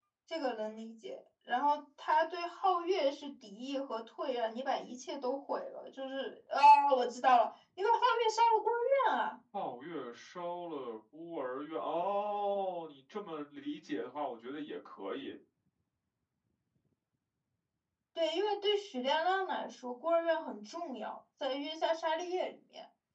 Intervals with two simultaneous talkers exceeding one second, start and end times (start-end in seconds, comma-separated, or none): none